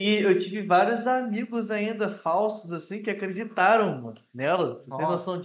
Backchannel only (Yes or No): No